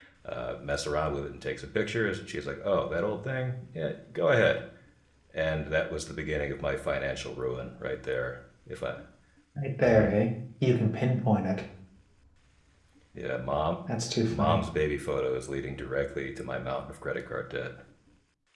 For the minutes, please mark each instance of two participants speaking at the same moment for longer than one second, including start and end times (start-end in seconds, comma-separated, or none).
none